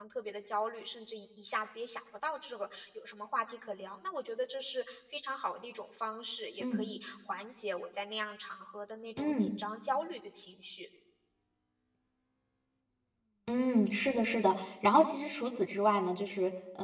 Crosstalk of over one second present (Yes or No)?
No